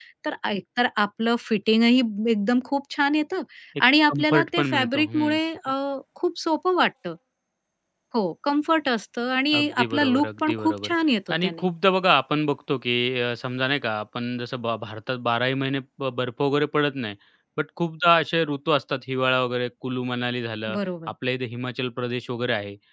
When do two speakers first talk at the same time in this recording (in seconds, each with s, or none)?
4.1 s